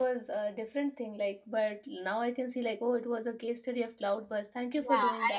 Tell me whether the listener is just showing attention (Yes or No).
No